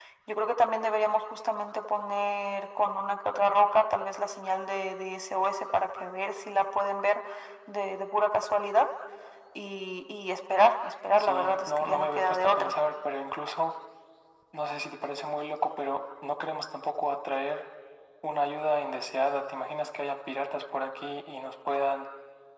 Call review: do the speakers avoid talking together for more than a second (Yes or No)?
No